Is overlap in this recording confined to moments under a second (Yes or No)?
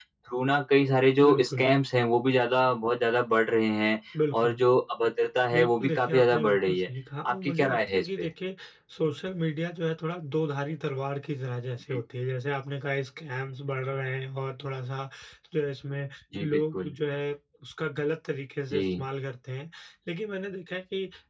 No